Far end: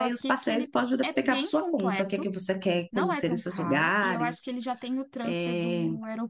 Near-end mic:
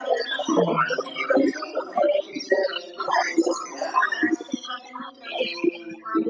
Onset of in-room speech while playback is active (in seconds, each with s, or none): 0.5 s